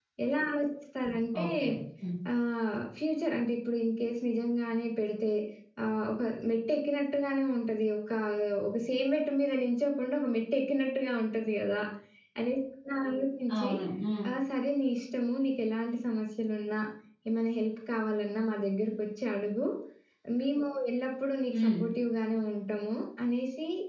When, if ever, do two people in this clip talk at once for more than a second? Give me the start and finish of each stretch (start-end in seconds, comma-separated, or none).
none